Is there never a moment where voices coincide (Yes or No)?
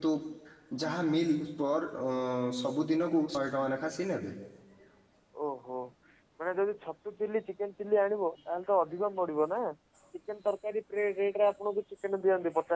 Yes